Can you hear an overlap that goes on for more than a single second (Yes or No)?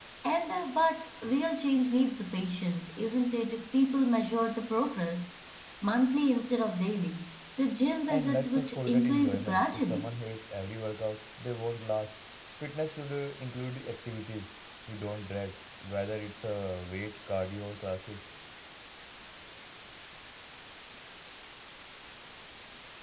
Yes